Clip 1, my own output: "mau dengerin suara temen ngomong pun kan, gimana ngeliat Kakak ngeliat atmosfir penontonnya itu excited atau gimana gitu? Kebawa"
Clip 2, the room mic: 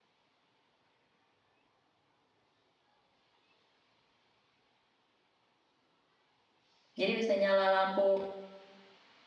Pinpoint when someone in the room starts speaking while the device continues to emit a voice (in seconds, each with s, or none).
7.0 s